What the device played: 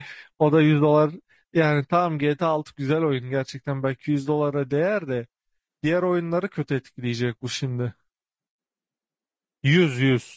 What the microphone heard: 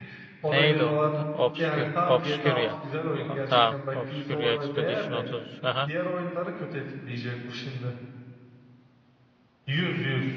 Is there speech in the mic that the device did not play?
Yes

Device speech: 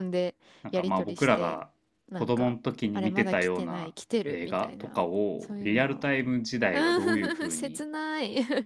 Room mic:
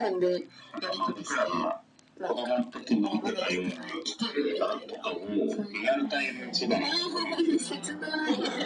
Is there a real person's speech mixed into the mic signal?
Yes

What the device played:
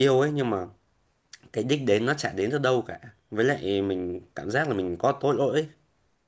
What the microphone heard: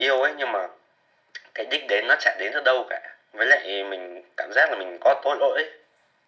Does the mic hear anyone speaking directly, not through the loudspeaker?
No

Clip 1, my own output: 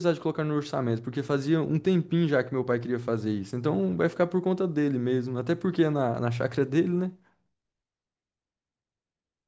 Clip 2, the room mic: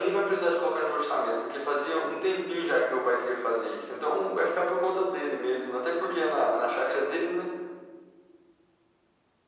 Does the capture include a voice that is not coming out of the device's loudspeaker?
No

